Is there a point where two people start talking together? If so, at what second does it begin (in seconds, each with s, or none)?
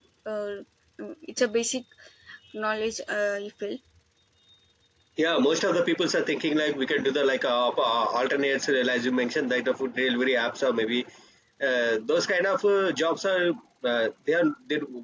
none